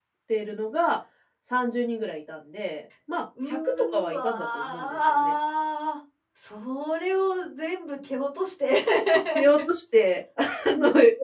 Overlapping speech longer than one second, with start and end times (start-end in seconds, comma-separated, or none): 3.5-5.3